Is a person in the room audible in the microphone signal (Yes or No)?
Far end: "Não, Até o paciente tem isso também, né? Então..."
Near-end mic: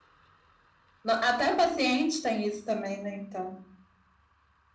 No